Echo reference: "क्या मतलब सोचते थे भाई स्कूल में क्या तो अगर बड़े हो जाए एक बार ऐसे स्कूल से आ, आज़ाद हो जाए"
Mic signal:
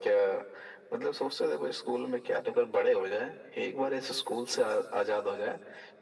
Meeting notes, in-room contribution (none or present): none